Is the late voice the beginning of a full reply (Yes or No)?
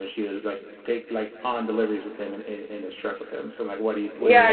Yes